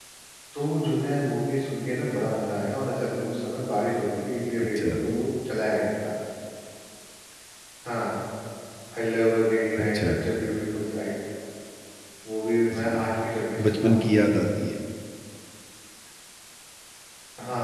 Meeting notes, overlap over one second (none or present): none